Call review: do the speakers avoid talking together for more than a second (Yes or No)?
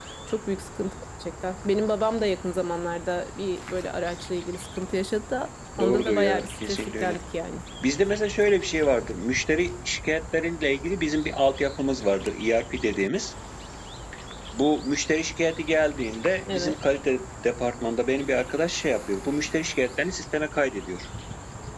No